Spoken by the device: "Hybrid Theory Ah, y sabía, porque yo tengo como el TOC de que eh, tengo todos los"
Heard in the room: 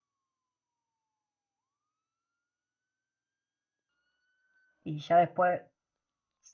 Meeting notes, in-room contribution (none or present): present